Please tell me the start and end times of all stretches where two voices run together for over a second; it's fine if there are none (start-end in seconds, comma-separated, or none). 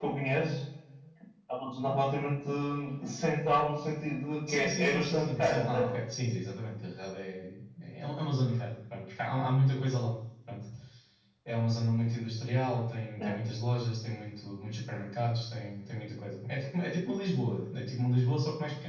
4.5-5.9